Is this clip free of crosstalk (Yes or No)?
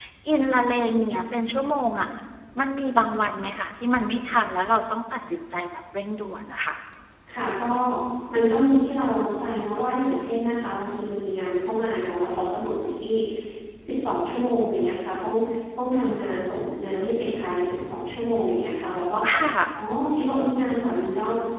Yes